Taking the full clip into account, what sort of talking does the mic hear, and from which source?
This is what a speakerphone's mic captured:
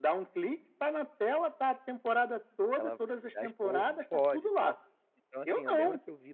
both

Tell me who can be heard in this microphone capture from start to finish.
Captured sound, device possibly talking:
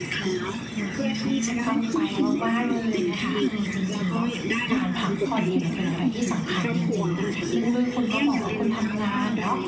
both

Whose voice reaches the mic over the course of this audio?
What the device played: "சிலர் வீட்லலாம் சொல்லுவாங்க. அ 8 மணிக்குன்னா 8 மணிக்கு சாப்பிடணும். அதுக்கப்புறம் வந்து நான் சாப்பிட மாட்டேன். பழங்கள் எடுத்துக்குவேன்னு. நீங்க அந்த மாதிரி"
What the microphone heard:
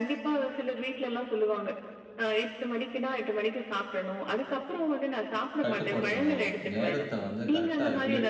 both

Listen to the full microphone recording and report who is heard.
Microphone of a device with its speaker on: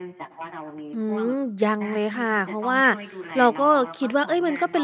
both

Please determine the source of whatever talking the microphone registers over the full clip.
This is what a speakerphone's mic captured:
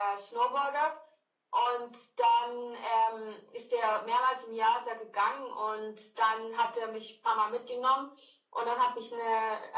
echo only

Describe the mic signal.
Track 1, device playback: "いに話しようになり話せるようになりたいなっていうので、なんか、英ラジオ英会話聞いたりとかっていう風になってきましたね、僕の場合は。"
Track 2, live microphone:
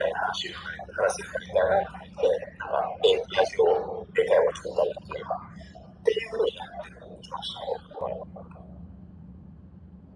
echo only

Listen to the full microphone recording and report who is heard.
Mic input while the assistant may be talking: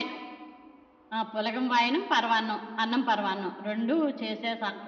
echo only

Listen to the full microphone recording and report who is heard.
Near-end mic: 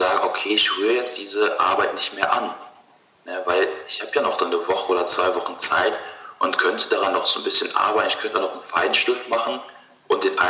echo only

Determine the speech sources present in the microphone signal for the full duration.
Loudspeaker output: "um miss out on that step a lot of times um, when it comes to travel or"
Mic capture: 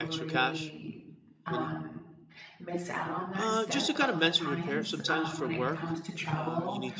both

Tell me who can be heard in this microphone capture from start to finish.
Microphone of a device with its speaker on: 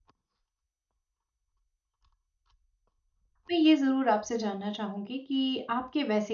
user only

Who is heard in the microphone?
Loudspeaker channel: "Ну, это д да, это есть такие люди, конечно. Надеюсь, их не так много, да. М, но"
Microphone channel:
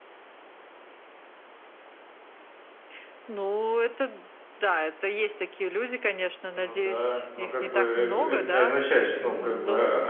both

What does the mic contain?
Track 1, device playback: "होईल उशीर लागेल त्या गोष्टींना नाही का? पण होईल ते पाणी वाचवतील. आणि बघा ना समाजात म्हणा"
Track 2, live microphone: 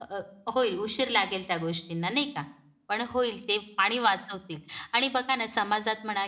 echo only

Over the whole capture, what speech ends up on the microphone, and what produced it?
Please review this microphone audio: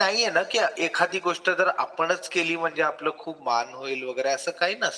echo only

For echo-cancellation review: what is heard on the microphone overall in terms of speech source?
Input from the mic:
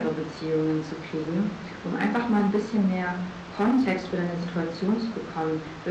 echo only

